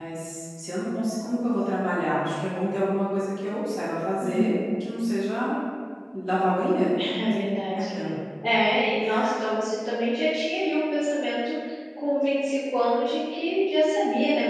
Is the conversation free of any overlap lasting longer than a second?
Yes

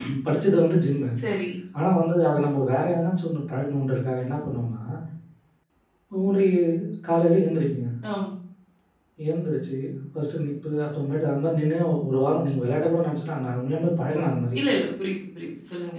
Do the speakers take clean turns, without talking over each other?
Yes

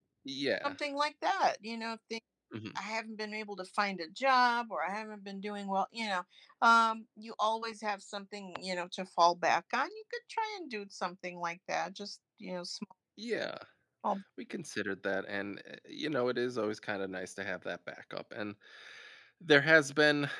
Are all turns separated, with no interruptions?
Yes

